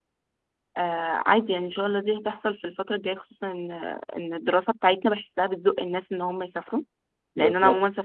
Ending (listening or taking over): listening